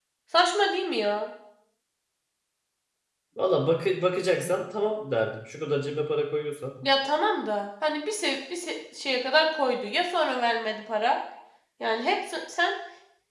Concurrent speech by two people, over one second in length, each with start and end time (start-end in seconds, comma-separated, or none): none